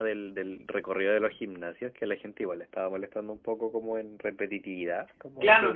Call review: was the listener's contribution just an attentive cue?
No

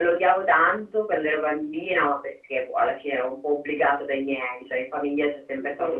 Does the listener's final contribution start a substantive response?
No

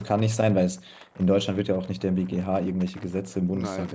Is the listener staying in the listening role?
No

